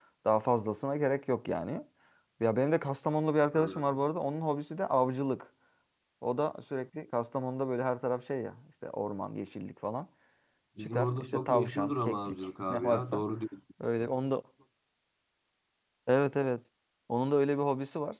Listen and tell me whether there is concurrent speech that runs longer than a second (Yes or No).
Yes